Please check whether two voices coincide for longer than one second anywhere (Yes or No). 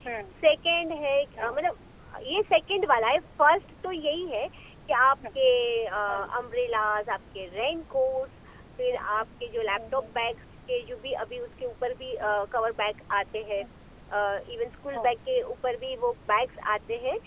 Yes